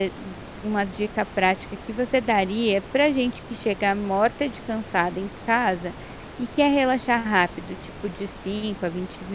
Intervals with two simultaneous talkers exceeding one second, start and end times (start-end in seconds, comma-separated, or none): none